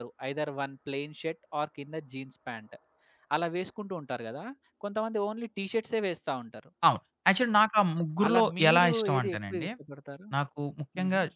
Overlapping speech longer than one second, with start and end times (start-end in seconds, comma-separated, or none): 8.3-9.7